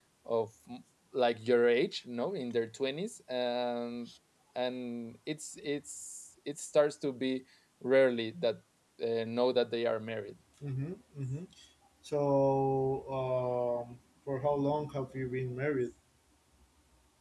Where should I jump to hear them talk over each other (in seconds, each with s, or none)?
none